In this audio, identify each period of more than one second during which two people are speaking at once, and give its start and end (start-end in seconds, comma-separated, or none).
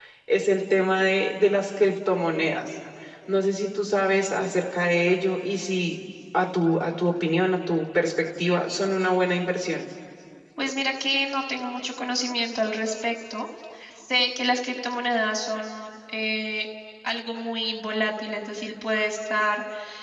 none